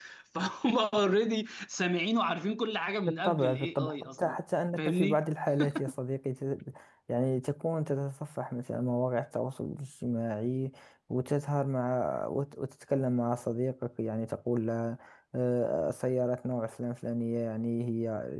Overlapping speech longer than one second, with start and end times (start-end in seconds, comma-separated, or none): 3.1-4.3